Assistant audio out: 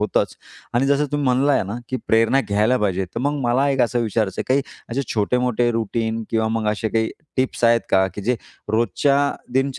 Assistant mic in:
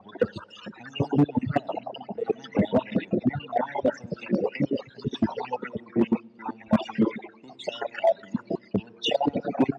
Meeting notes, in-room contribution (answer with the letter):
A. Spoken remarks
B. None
B